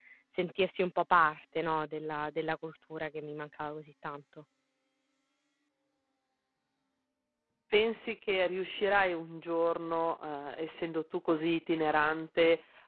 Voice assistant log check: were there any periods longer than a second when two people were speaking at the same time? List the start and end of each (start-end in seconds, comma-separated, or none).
none